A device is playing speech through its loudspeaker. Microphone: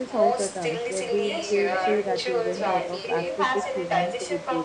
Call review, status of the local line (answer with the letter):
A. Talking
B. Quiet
A